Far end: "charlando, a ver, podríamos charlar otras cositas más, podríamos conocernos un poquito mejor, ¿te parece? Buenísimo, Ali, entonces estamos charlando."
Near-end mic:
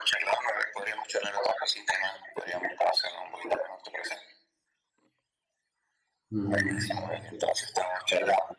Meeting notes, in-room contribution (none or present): present